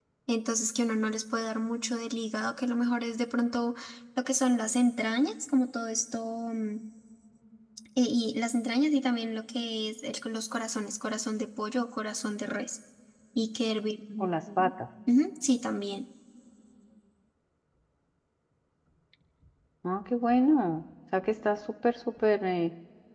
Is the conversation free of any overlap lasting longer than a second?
Yes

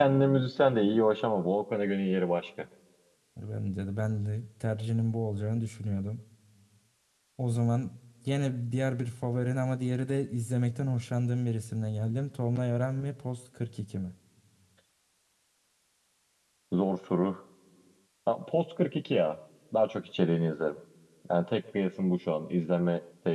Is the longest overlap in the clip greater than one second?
No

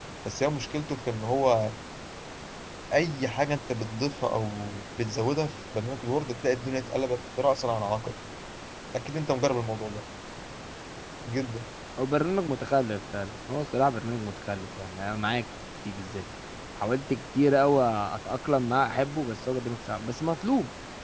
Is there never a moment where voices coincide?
Yes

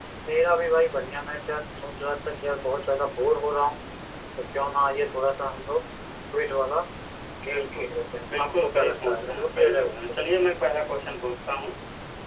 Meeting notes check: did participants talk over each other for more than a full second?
Yes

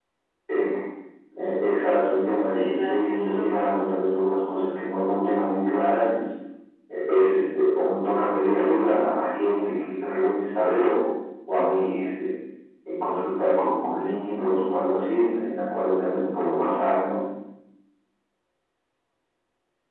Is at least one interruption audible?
Yes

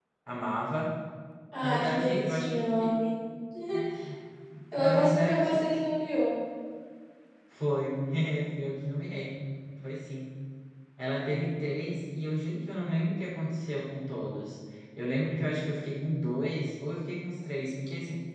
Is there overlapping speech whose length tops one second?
Yes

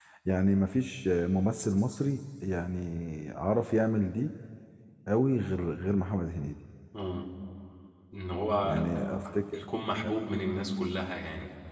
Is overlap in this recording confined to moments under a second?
Yes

